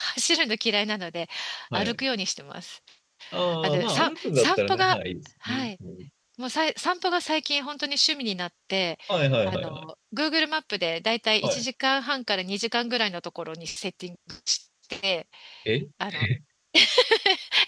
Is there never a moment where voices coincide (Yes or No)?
No